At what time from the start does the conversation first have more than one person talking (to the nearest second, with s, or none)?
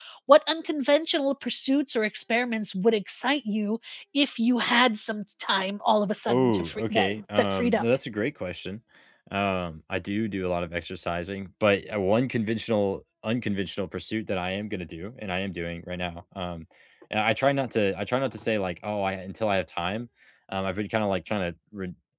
6 s